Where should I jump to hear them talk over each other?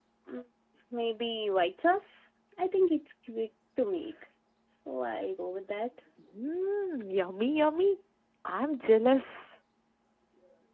none

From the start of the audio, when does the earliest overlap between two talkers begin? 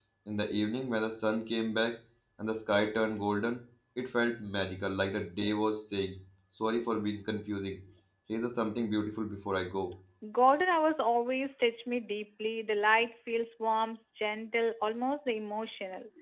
none

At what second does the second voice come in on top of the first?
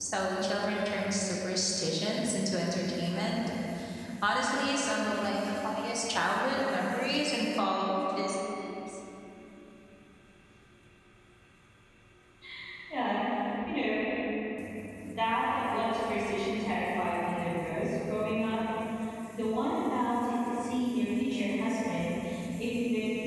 none

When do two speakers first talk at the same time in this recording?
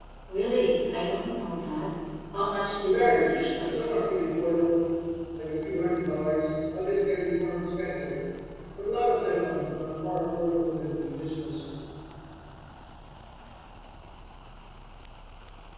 2.8 s

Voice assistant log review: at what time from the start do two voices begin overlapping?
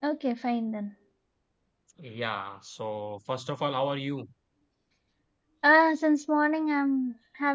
none

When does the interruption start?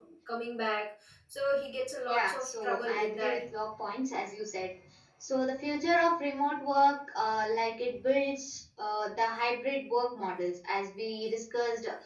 2.1 s

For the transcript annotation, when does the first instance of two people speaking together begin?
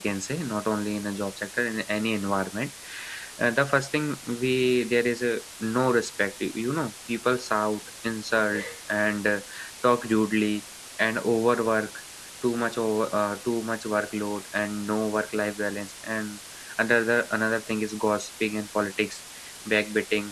none

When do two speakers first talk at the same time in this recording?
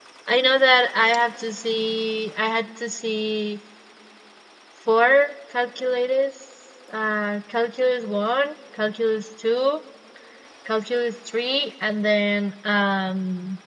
none

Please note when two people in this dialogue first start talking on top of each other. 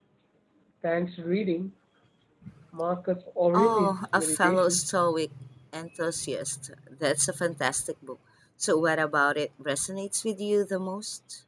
3.5 s

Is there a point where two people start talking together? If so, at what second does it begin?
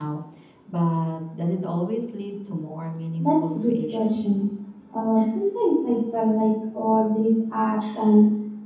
3.2 s

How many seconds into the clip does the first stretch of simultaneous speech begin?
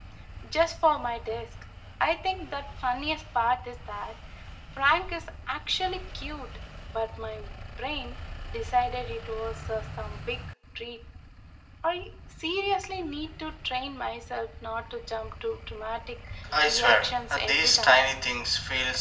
16.5 s

